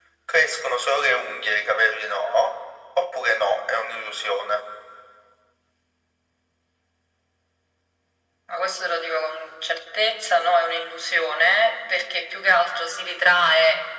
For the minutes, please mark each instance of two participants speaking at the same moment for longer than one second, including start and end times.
none

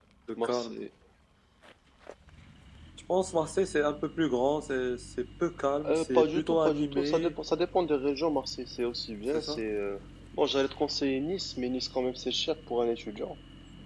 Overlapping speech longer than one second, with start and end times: 5.9-7.3

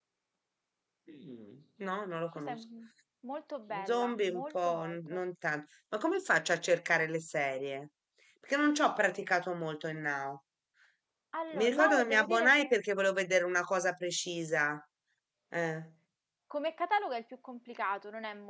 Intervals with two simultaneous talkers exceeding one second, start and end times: 3.8-5.2, 11.5-12.8

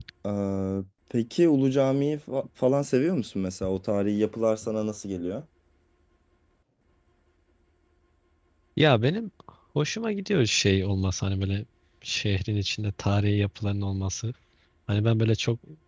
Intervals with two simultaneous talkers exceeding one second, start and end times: none

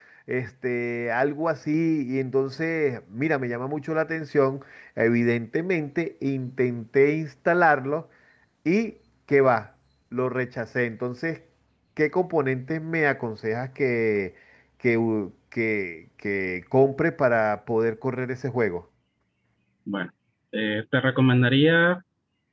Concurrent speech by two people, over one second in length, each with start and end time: none

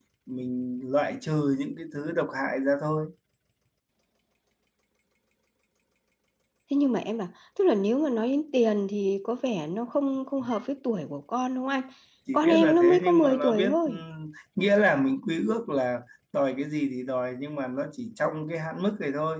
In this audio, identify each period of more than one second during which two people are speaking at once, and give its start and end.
12.3-13.9

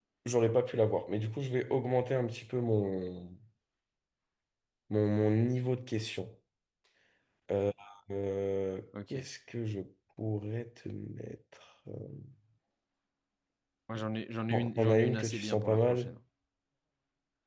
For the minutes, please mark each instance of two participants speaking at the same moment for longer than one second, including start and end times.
14.5-16.1

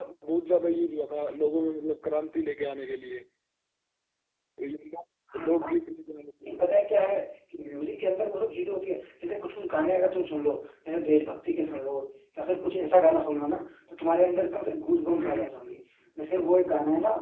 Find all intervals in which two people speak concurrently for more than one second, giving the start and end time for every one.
none

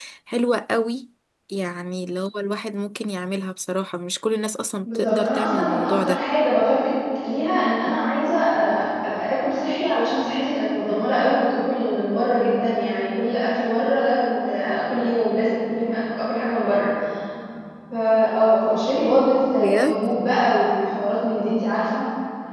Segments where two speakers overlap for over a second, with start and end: 4.8-6.2

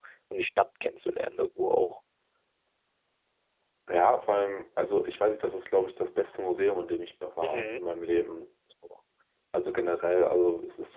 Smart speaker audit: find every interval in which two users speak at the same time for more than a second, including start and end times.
none

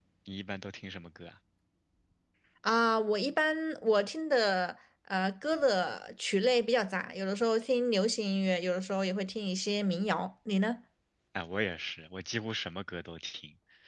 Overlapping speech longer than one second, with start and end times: none

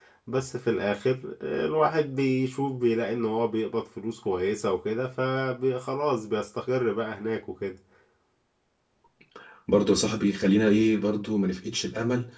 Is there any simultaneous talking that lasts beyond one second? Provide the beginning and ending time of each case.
none

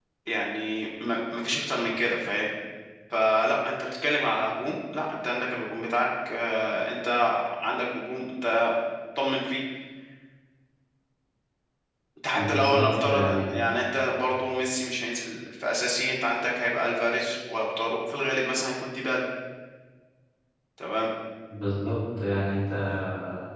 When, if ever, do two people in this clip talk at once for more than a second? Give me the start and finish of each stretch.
12.3-13.6

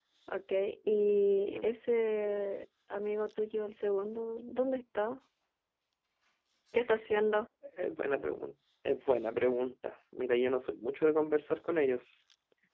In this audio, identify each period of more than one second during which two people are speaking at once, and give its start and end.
none

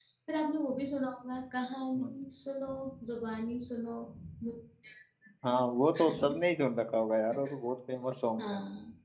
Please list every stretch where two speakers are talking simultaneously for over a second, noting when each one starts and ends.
none

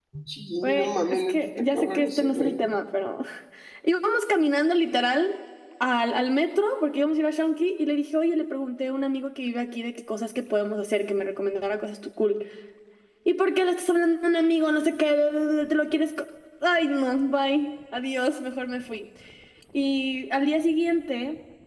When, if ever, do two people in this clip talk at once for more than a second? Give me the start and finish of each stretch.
0.6-2.6

